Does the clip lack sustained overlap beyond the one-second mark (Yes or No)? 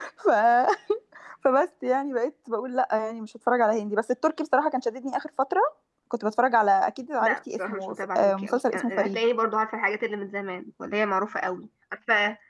No